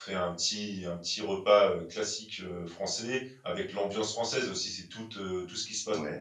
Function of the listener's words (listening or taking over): listening